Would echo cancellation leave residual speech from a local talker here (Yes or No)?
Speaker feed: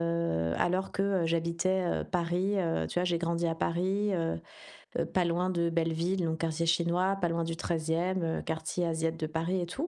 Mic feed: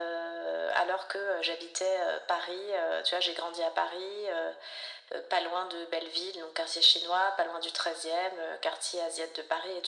No